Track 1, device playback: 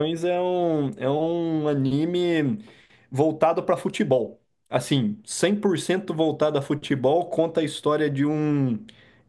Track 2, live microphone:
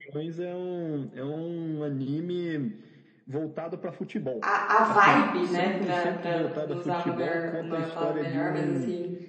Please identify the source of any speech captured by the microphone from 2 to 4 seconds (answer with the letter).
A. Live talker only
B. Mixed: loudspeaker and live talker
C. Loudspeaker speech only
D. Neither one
C